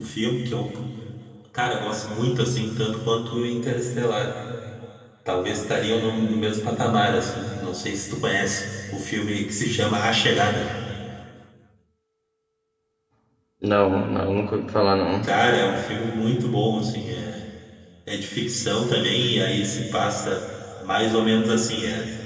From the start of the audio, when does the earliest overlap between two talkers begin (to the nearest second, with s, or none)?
none